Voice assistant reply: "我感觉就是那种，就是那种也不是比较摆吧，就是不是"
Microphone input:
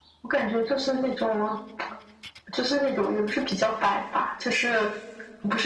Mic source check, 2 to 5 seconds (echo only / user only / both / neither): echo only